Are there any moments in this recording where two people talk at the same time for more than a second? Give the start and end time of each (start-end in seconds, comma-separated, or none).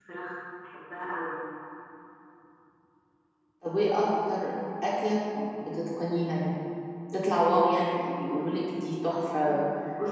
none